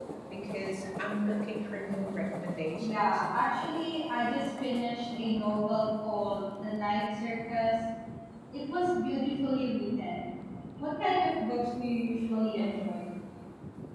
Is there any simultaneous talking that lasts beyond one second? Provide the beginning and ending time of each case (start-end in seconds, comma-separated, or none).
none